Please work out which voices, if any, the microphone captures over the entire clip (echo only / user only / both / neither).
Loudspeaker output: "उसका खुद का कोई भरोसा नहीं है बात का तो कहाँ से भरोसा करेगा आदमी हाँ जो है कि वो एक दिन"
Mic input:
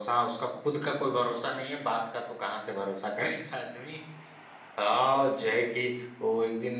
echo only